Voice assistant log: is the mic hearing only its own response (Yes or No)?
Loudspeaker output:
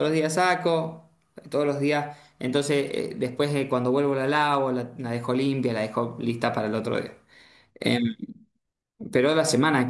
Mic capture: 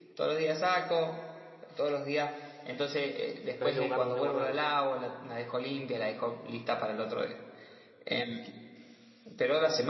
No